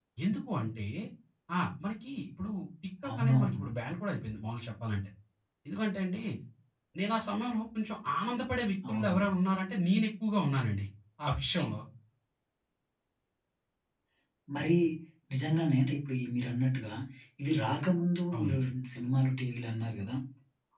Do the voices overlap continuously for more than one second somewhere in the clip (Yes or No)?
No